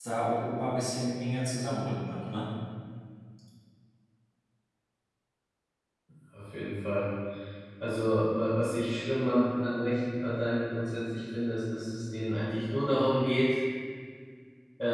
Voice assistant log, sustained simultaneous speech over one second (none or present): none